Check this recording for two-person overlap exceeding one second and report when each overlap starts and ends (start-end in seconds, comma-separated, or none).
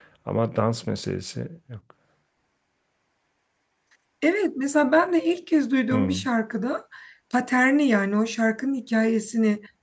none